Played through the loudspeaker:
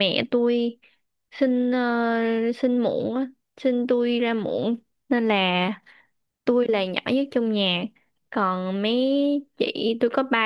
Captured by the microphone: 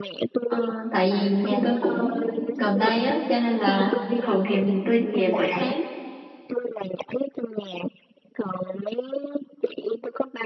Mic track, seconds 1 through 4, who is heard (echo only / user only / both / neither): both